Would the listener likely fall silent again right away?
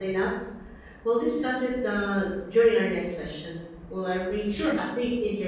Yes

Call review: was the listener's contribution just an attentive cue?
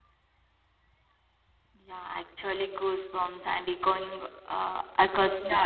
No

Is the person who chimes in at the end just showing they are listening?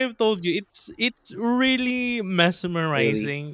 Yes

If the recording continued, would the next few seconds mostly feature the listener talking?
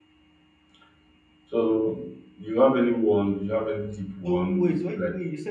Yes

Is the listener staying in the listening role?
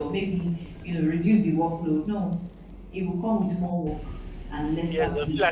No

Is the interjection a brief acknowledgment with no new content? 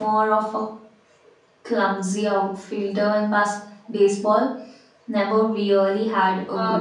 No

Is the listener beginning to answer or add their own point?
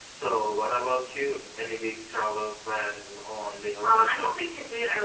Yes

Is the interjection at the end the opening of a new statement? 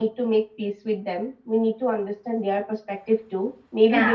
No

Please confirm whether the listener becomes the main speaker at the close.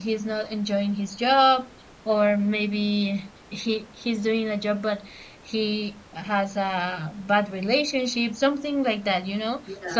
No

